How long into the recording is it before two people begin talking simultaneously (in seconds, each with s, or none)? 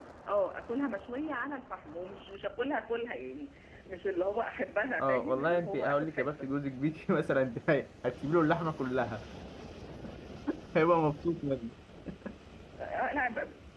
5.0 s